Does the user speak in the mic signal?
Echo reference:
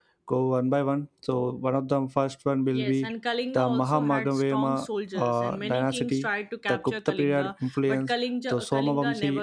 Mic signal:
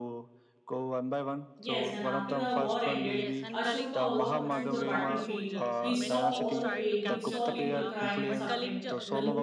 Yes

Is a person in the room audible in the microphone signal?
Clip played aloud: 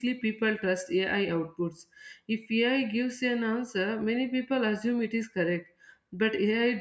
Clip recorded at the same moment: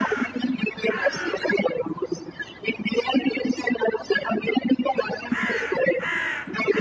No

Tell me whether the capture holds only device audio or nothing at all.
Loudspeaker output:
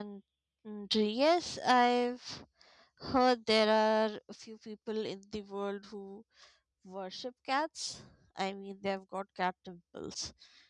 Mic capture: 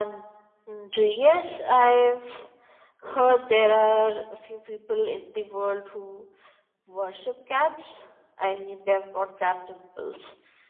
Yes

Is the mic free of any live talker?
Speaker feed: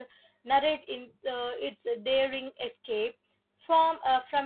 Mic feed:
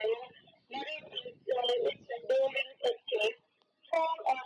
Yes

